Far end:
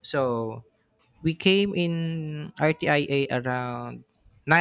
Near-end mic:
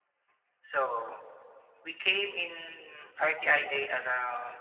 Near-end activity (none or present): none